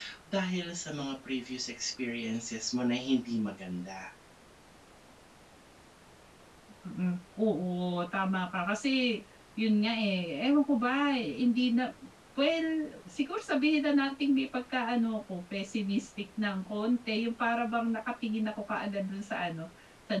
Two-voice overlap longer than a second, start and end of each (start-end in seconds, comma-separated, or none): none